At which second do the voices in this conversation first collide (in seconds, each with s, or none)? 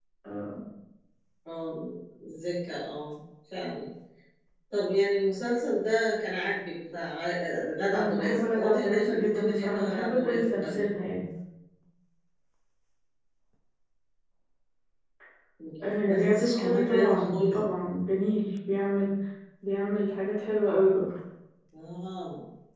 7.9 s